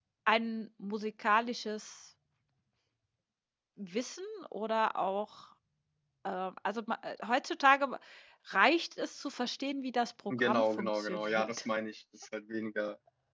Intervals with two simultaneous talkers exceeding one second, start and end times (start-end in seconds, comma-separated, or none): 10.3-11.5